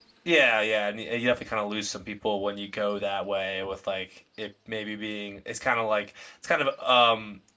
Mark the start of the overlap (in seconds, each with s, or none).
none